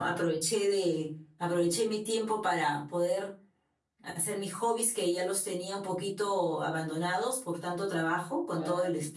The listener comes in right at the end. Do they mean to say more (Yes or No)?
No